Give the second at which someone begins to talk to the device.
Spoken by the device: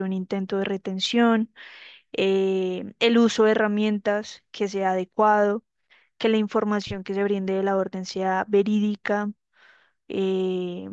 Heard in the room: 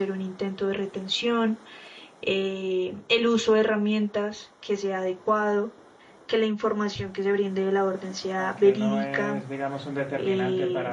8.3 s

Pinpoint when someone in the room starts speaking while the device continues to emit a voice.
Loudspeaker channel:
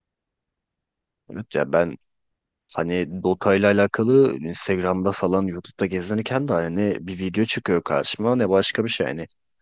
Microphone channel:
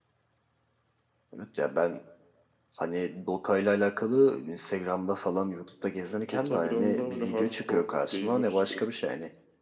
6.0 s

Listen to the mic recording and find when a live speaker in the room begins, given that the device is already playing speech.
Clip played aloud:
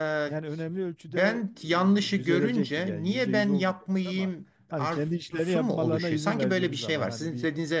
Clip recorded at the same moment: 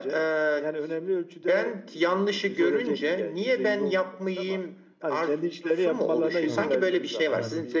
6.5 s

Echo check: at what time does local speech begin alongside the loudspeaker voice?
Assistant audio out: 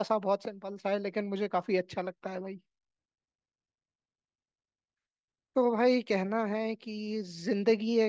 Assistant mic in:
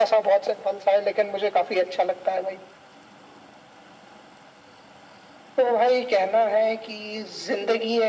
none

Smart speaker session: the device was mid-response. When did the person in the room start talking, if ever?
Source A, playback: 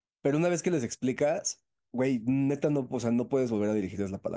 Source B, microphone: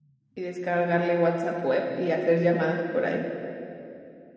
0.3 s

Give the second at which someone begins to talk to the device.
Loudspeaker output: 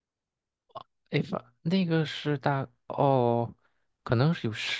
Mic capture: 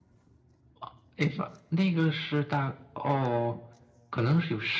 none

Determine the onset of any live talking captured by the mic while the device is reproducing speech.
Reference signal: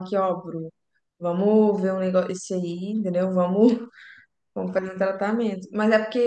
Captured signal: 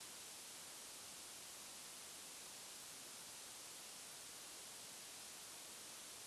none

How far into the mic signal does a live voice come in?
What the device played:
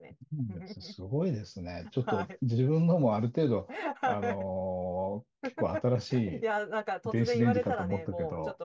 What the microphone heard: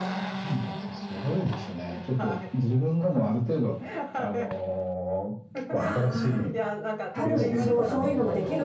5.7 s

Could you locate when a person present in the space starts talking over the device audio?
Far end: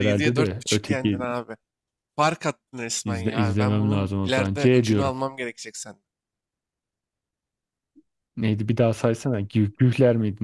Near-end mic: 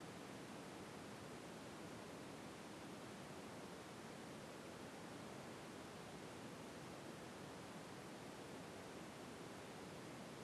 none

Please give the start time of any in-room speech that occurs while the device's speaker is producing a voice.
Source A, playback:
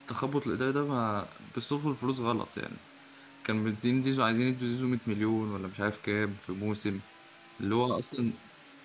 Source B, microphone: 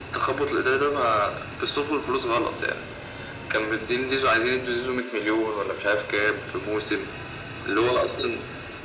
none

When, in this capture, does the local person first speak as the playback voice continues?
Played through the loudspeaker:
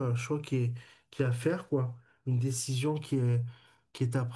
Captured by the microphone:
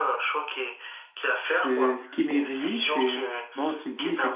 1.6 s

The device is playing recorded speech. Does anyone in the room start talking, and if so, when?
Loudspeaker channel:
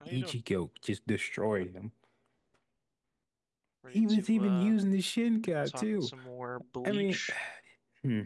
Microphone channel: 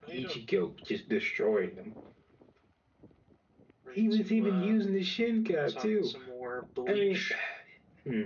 none

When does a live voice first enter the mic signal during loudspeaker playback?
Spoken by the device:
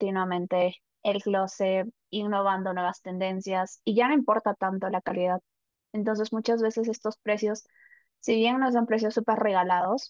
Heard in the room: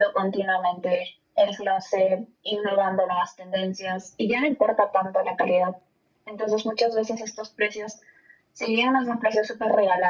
none

